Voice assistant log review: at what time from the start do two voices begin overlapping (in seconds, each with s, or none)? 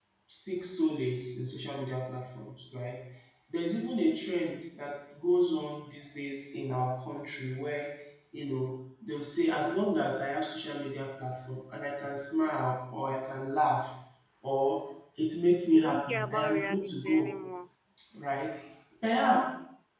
15.7 s